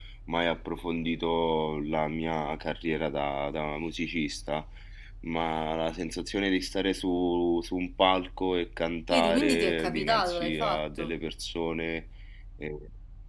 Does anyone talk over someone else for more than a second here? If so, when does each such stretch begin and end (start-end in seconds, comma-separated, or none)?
9.1-11.1